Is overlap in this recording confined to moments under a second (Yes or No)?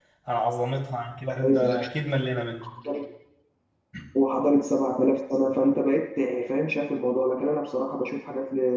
Yes